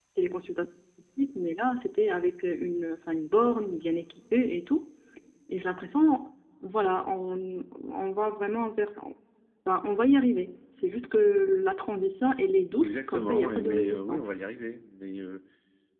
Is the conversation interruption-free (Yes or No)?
No